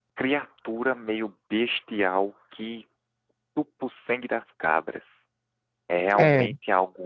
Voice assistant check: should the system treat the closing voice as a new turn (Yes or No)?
No